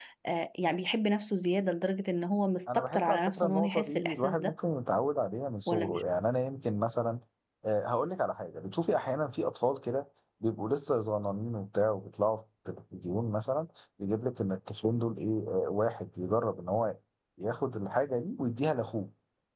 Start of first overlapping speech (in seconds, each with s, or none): 2.7 s